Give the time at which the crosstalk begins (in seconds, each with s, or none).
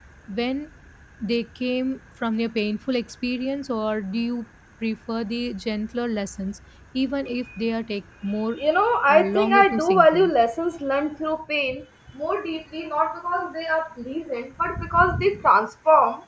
9.1 s